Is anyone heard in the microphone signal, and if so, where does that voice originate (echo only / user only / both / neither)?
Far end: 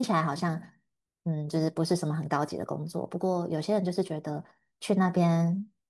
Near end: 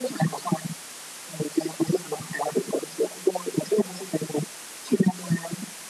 echo only